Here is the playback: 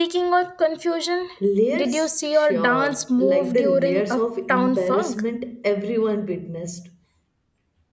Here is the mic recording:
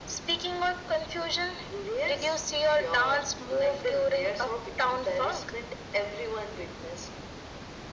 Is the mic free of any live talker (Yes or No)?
Yes